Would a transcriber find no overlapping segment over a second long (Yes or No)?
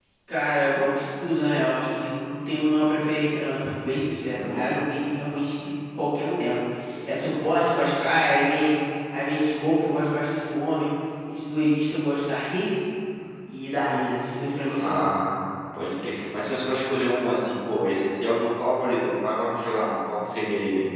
Yes